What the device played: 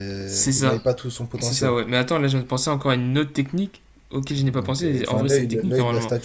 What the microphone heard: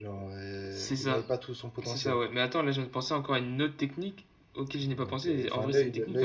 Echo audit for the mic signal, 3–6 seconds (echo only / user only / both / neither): echo only